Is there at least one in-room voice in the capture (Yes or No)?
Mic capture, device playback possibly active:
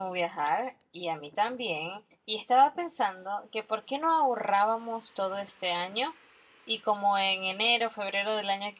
No